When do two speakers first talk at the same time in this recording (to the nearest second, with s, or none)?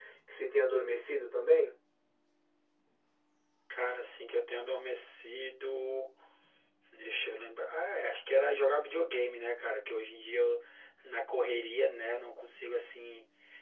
none